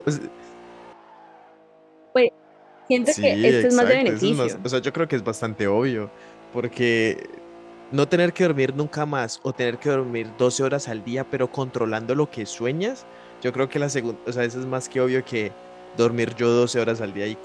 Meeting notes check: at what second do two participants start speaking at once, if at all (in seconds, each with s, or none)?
3.1 s